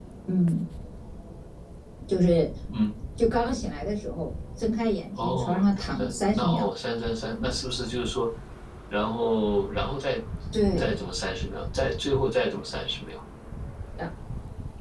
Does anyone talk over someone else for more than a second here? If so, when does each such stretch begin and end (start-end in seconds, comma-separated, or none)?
5.2-6.7